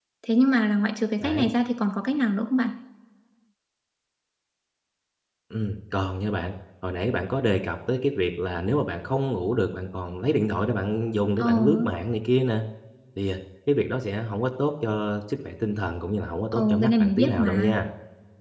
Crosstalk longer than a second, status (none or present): present